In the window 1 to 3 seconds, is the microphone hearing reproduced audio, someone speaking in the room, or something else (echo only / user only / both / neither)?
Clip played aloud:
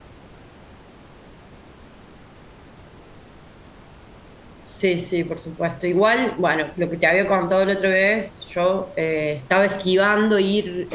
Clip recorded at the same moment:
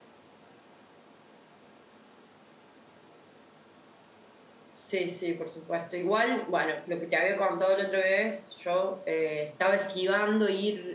neither